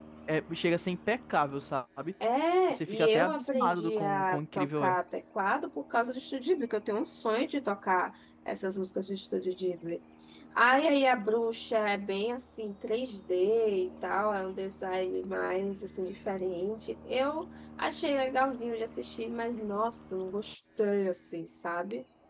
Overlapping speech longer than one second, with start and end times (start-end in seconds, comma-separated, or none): 2.7-5.0